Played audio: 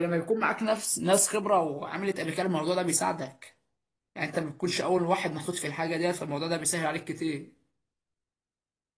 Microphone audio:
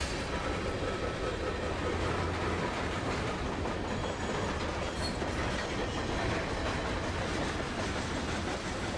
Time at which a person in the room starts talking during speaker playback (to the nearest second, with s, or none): none